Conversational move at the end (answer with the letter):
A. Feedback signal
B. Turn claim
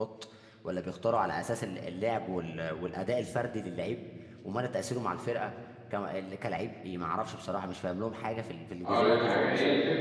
B